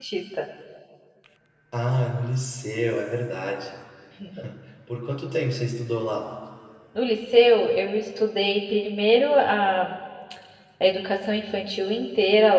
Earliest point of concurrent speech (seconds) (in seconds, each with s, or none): none